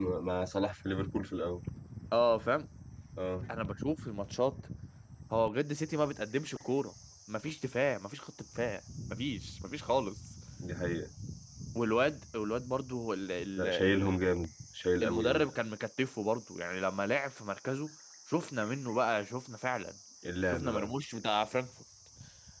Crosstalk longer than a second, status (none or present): none